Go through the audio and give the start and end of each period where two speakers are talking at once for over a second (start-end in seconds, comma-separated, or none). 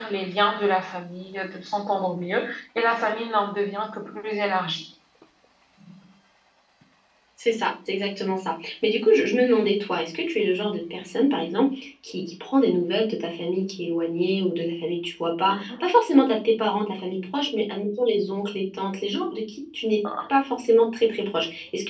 none